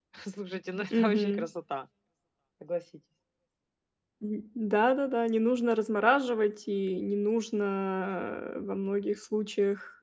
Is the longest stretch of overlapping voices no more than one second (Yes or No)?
Yes